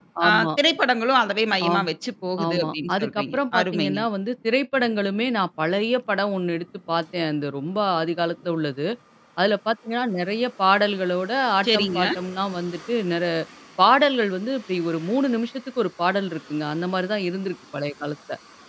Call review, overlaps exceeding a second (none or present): present